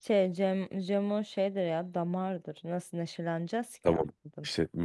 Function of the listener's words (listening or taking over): taking over